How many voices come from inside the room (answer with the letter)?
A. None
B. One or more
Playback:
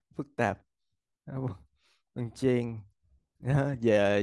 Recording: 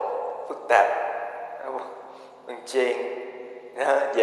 A